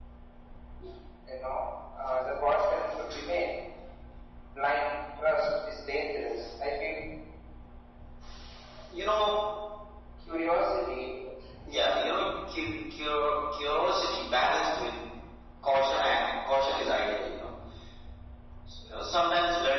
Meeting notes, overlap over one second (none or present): none